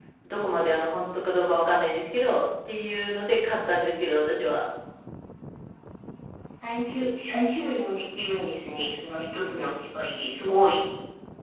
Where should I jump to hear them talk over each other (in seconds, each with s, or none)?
none